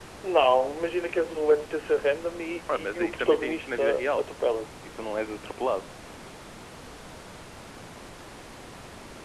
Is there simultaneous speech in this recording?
Yes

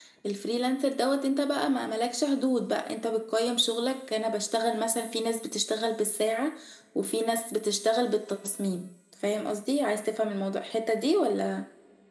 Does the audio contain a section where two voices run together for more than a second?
No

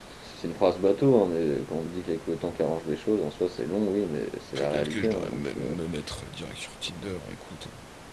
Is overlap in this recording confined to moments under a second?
No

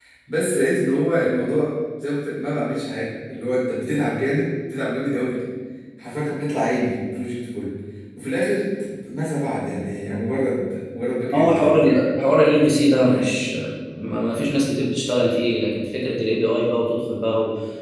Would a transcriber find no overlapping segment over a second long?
Yes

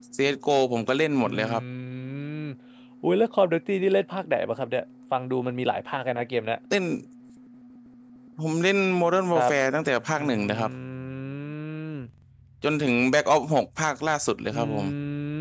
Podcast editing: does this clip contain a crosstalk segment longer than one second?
No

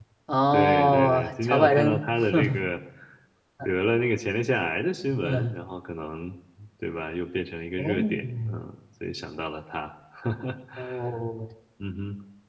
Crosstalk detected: Yes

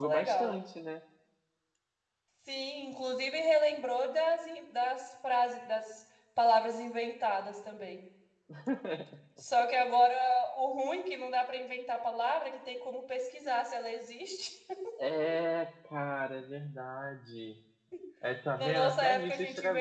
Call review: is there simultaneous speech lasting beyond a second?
Yes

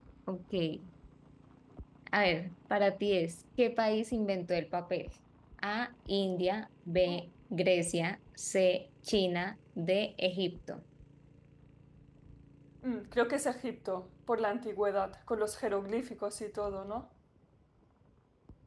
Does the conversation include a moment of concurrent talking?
No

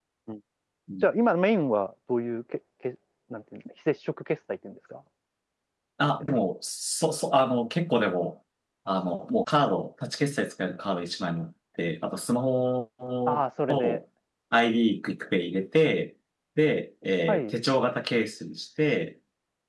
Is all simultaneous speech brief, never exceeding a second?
Yes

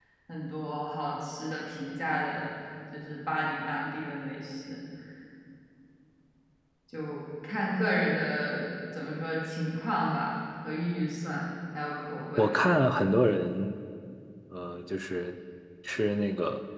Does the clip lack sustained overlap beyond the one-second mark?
Yes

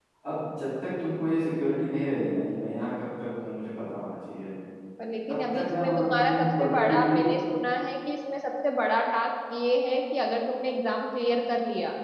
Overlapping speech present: Yes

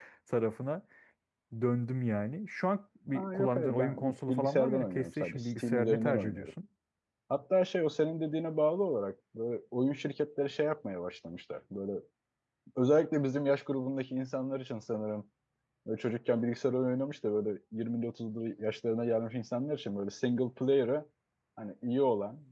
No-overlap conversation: No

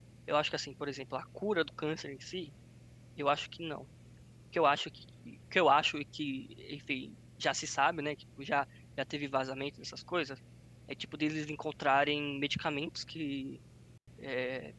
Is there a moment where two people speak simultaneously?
No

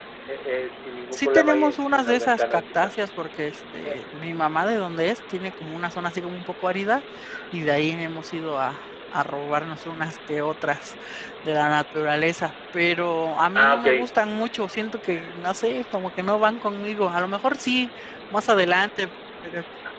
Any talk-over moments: Yes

